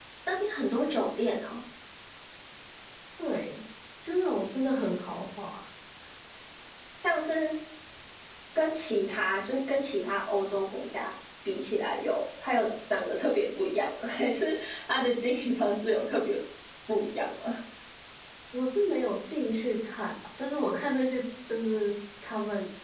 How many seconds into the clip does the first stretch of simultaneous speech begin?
none

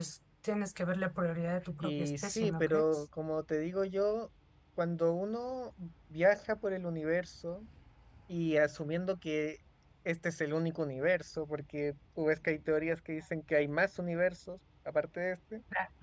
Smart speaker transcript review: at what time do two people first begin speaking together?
1.8 s

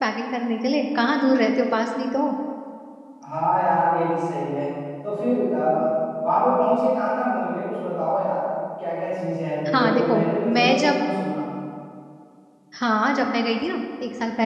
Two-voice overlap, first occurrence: 9.7 s

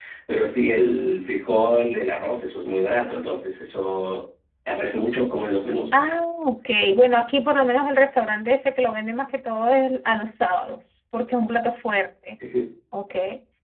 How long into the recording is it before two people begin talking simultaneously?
none

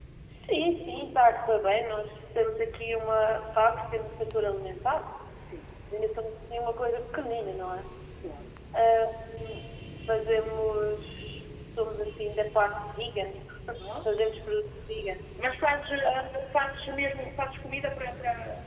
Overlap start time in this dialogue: none

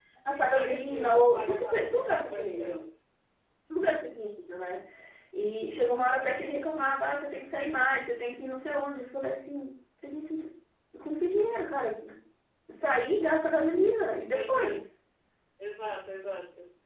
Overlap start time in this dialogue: 0.5 s

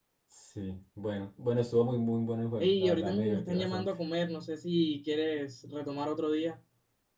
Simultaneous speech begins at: 2.6 s

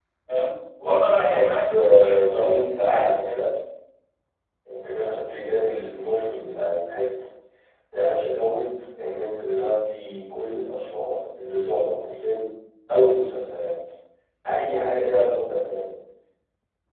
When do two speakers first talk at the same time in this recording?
1.3 s

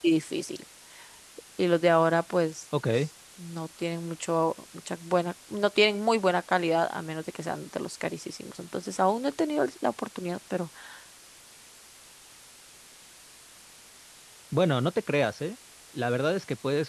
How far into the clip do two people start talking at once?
none

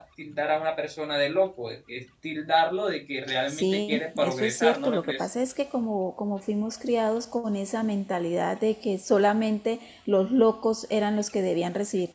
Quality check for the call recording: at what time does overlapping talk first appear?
3.5 s

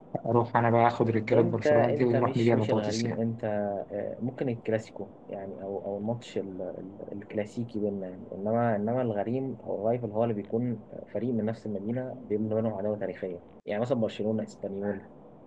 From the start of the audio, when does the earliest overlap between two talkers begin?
1.3 s

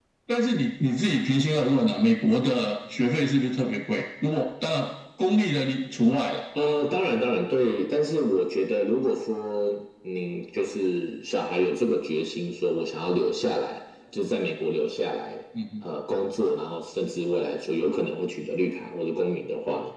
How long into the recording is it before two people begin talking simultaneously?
none

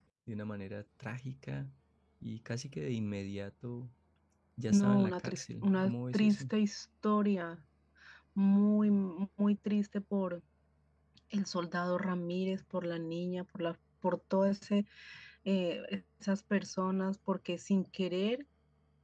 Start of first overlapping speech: 4.7 s

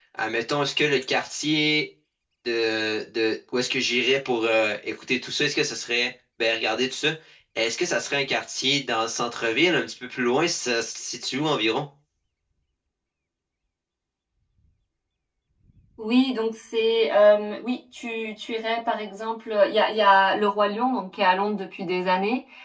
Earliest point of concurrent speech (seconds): none

